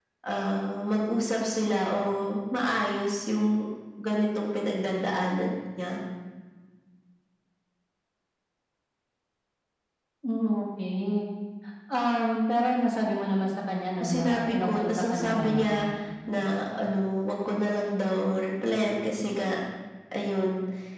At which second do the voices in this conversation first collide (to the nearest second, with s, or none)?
14 s